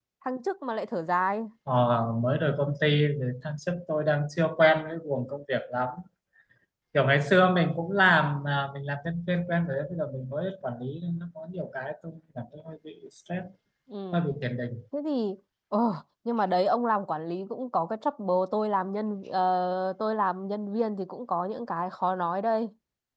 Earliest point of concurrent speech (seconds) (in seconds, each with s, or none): none